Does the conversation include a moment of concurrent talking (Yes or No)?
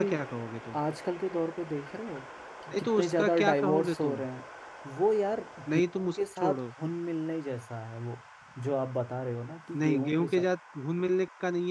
Yes